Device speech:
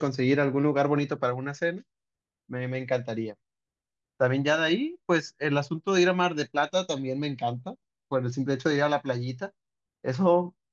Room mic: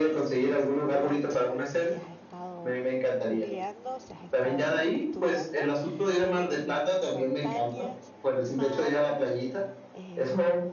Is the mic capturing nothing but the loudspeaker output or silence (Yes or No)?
No